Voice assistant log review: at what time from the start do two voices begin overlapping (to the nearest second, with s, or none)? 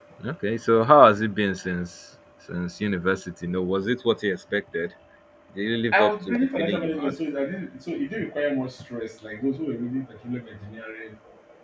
6 s